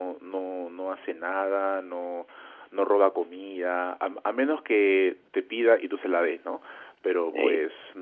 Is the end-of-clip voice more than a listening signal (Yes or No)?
No